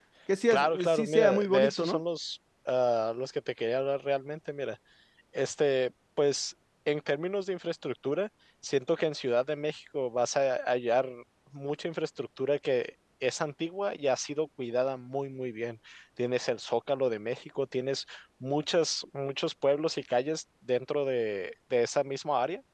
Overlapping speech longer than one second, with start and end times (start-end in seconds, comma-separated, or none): 0.5-2.0